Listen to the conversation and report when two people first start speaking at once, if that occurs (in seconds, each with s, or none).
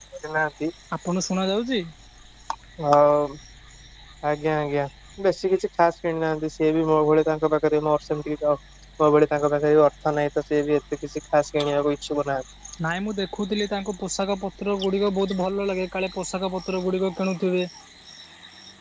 none